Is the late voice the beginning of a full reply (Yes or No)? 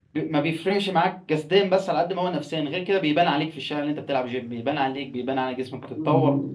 Yes